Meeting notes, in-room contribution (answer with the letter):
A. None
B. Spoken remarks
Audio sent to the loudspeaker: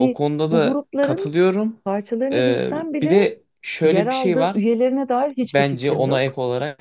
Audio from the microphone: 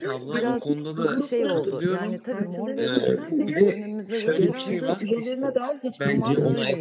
B